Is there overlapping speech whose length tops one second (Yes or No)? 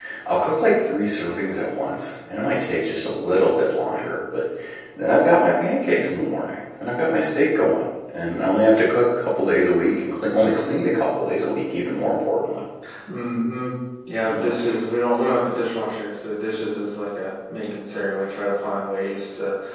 No